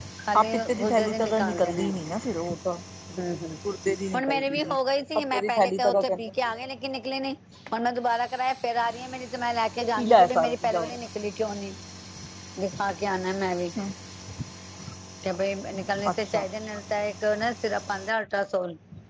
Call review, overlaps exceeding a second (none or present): present